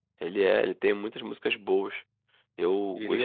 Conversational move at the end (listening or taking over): listening